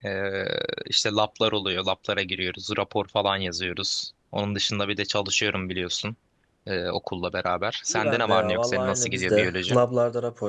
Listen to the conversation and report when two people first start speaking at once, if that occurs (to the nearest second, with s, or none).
8 s